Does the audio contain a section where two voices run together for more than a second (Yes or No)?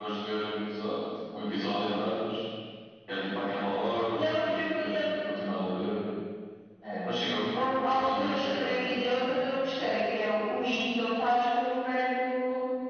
Yes